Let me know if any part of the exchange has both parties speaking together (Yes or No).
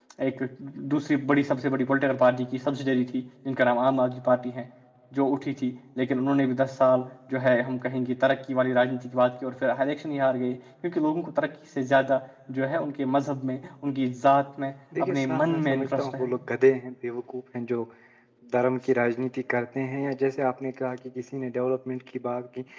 Yes